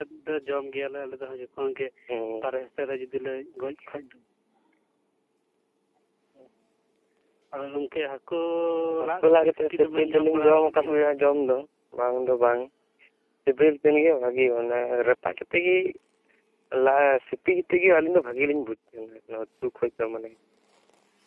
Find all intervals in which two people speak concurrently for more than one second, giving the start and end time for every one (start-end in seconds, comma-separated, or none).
9.1-11.2